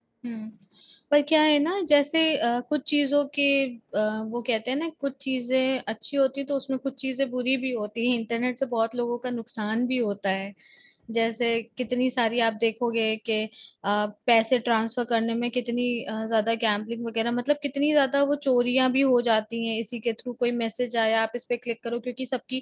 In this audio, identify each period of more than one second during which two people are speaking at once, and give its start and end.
none

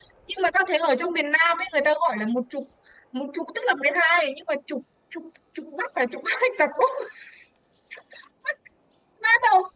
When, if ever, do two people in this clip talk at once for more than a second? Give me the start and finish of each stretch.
none

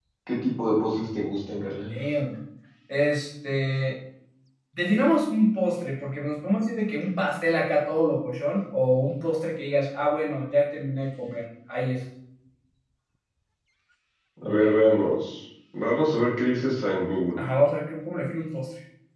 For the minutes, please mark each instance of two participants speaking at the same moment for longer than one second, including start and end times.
none

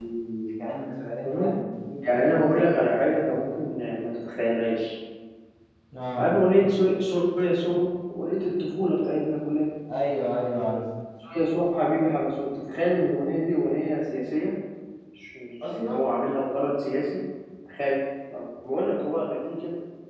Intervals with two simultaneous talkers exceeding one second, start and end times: 2.1-3.5

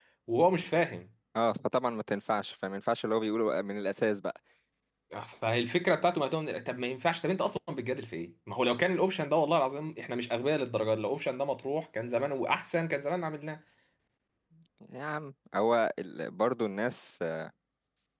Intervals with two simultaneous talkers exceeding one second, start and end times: none

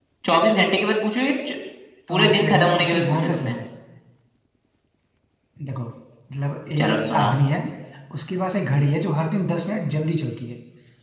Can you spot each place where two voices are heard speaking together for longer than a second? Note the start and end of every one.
2.1-3.6

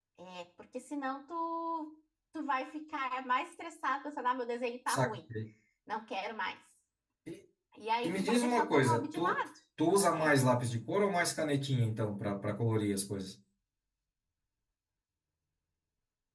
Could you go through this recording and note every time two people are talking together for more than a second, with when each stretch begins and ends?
8.0-9.4

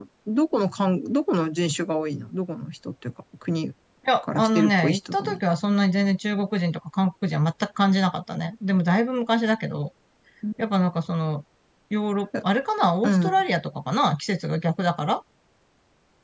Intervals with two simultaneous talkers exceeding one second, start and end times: 4.2-5.5

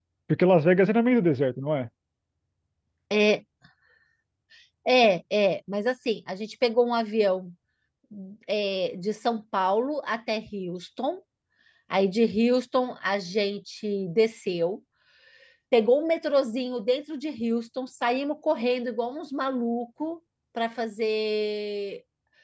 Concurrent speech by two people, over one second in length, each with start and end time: none

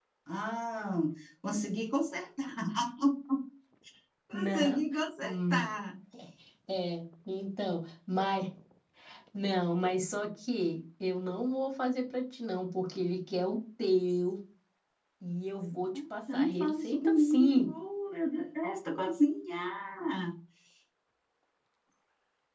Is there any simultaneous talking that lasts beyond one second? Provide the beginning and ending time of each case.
16.3-17.7

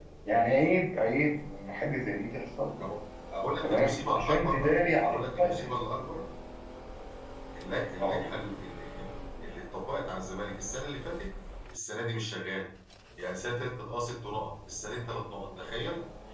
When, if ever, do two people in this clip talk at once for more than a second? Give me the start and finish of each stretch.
3.6-5.7

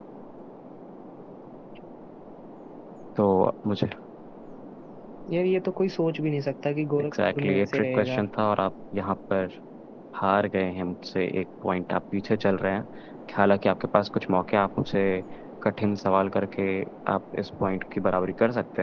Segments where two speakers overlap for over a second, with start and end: 7.0-8.2

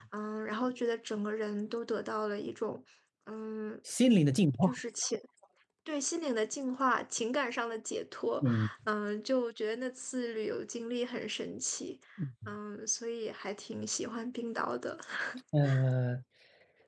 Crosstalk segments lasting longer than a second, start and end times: none

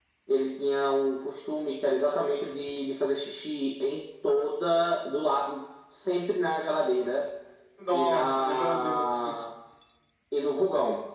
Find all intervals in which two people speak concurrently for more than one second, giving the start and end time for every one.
7.9-9.3

